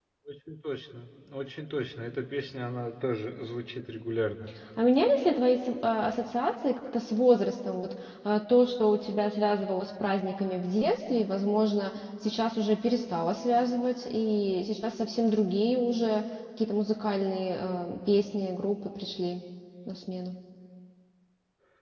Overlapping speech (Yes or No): No